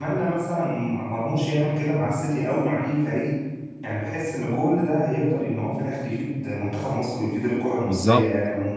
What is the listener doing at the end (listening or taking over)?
taking over